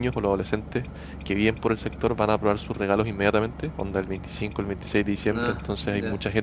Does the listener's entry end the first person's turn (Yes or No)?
No